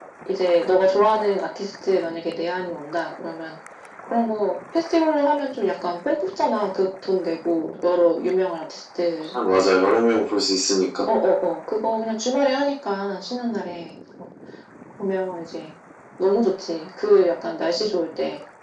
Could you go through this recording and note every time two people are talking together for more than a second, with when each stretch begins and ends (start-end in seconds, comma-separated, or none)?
none